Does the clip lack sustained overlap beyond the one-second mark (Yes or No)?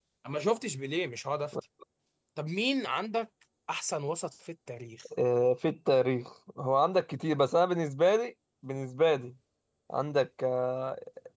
Yes